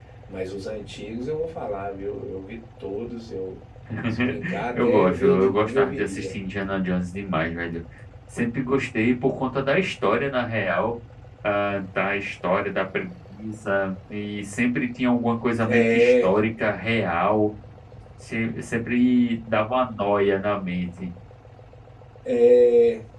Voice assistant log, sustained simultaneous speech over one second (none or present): present